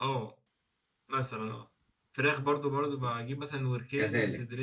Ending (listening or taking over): listening